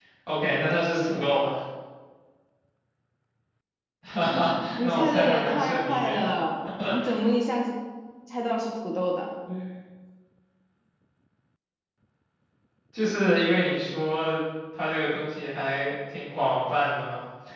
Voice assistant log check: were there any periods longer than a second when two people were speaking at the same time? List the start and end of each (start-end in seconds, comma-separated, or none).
4.8-6.2